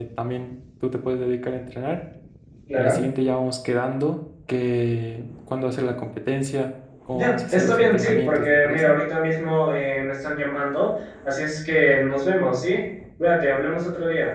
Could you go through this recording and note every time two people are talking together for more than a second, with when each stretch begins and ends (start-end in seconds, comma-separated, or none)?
7.1-8.9